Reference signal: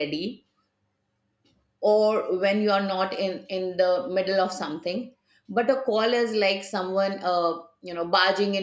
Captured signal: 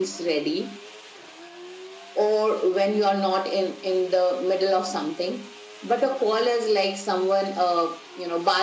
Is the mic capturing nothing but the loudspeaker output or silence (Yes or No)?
Yes